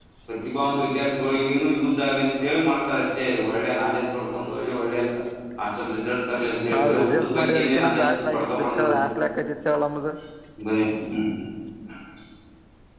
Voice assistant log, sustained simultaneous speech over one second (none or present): present